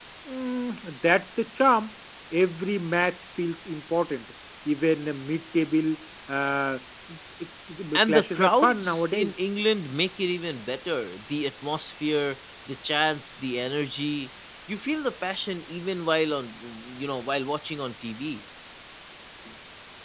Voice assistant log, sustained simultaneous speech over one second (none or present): present